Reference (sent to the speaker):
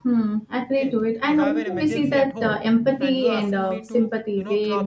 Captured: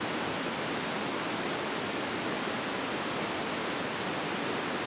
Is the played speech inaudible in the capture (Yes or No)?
Yes